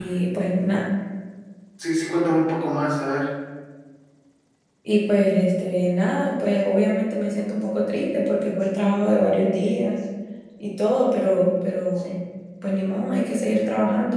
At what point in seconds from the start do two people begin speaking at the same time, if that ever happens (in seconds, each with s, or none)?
none